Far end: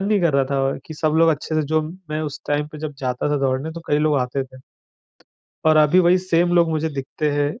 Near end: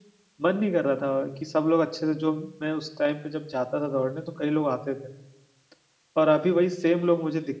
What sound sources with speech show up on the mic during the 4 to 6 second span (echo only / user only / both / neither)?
echo only